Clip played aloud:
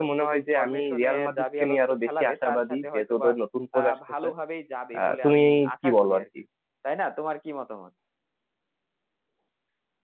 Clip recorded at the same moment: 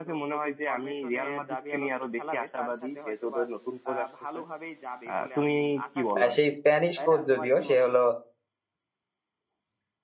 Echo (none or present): present